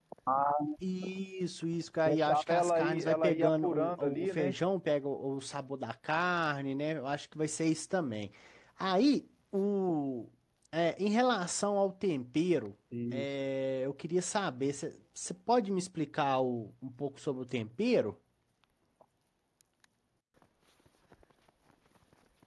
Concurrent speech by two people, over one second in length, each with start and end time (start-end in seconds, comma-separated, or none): 2.0-4.5